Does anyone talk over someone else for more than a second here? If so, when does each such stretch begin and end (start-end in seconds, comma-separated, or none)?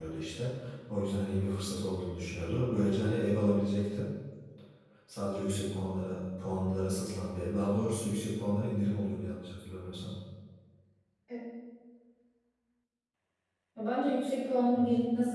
none